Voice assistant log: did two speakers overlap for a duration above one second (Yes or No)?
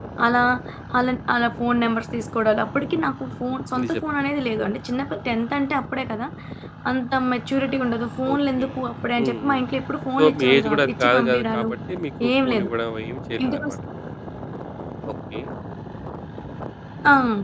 Yes